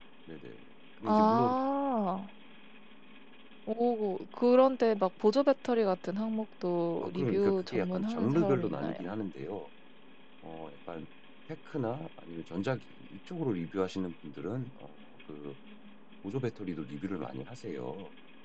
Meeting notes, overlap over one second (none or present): present